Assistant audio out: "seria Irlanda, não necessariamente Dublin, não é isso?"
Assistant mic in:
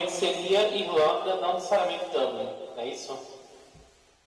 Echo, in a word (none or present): present